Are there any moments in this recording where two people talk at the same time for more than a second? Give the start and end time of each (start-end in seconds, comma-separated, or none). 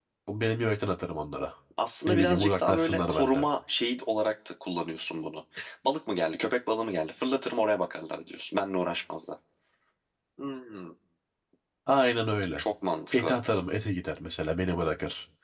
2.1-3.5